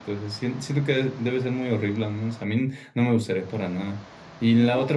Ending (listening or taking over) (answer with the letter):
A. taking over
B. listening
B